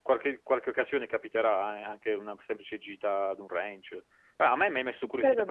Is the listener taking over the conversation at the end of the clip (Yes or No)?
No